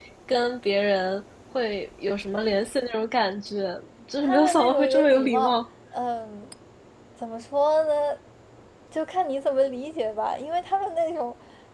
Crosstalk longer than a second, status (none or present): present